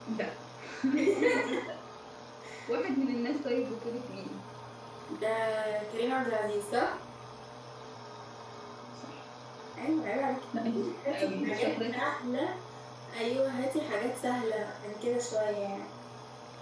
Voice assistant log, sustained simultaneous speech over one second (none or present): present